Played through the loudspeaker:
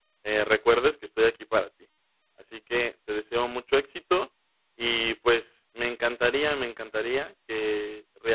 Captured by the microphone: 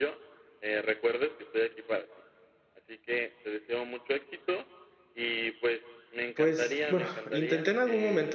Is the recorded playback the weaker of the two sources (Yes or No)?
Yes